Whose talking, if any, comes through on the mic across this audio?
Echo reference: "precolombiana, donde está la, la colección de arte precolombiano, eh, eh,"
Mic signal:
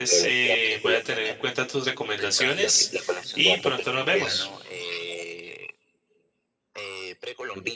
both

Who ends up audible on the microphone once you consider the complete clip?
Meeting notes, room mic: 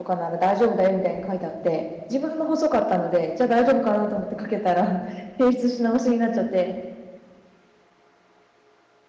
user only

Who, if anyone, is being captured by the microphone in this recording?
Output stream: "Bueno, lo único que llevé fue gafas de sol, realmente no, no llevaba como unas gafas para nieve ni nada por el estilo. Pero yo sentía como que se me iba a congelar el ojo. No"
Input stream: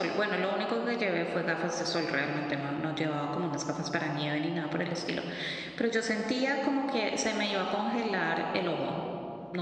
echo only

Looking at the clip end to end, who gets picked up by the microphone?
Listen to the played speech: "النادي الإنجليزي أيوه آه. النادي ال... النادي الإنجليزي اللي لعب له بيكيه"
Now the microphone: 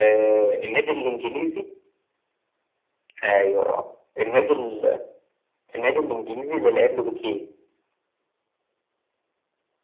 echo only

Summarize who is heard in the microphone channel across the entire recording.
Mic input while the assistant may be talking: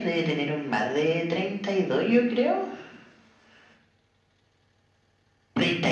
echo only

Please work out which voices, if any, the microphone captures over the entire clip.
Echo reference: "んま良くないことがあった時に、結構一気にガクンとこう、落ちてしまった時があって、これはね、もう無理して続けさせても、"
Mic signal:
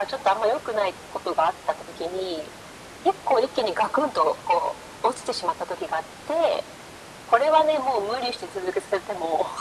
echo only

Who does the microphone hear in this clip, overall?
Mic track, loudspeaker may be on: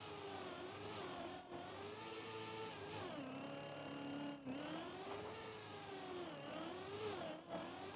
neither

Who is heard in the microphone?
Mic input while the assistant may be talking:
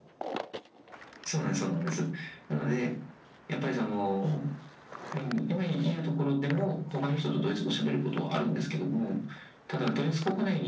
echo only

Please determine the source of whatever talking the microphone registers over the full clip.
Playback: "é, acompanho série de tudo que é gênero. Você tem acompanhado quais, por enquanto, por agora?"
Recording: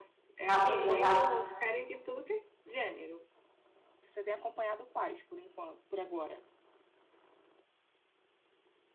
both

